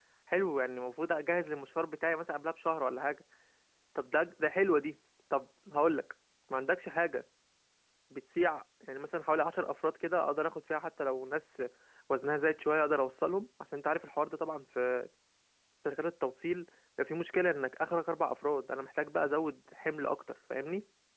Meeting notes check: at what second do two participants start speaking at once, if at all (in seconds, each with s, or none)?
none